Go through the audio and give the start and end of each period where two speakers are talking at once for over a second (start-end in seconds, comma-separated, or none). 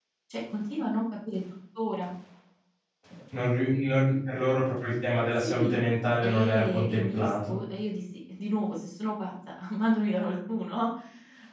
6.2-7.6